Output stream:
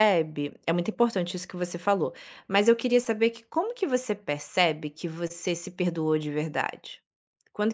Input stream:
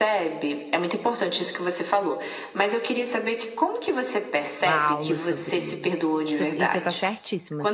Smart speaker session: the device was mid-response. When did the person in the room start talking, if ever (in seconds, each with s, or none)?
4.6 s